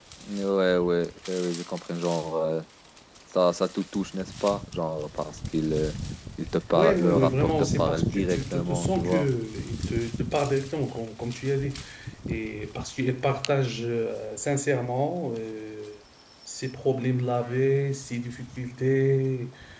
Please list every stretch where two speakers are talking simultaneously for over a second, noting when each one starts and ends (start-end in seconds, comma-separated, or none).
6.7-9.3